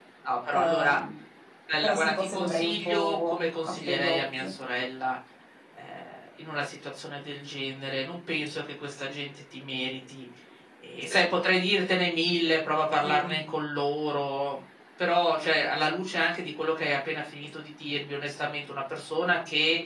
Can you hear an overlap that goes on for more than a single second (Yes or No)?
Yes